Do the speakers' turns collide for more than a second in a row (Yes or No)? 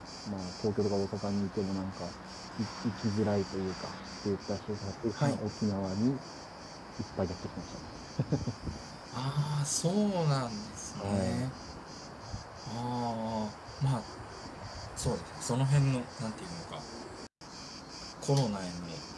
No